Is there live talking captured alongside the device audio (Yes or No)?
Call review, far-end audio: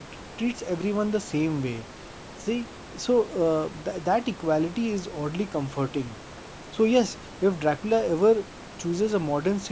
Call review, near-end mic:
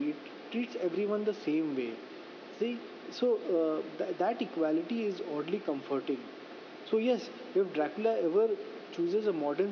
No